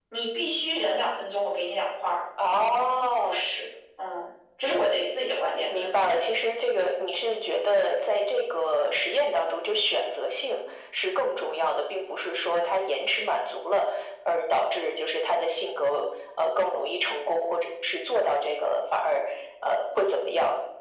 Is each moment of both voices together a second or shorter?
Yes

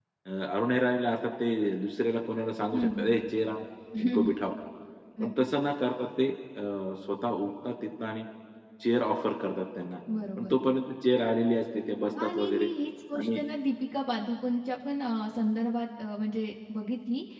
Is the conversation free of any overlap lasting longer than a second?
Yes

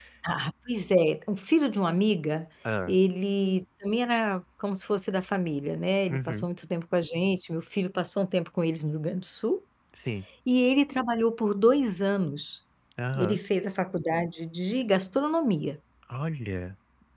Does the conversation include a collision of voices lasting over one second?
No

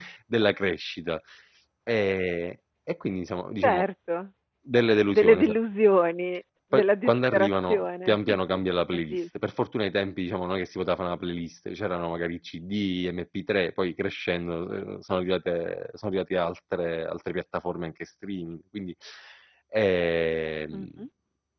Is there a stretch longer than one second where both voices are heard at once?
Yes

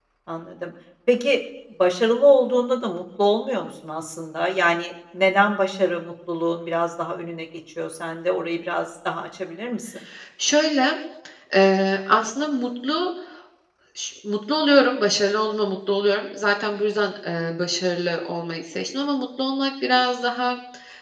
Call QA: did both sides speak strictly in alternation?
Yes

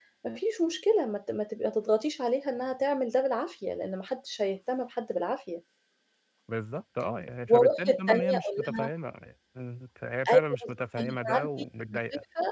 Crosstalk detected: Yes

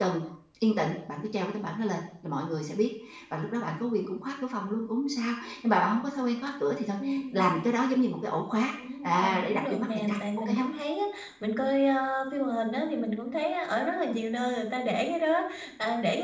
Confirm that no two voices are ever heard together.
No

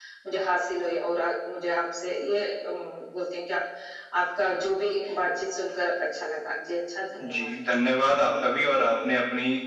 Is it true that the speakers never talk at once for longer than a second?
Yes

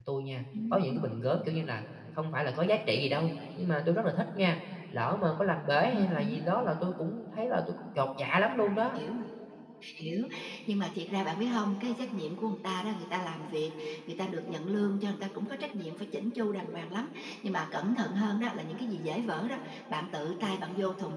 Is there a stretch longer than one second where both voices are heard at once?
No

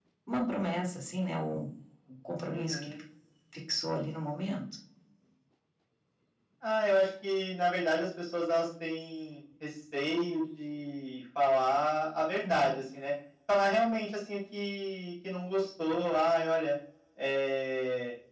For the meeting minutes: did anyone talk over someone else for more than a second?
No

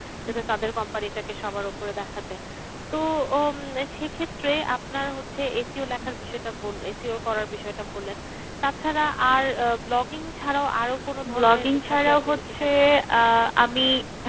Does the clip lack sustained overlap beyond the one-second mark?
No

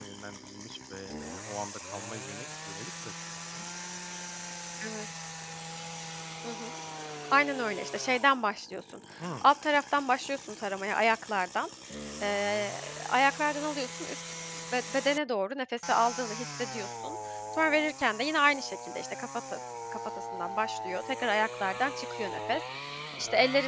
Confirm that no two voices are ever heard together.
Yes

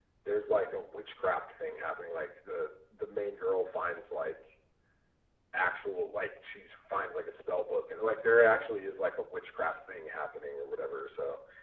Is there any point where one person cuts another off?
No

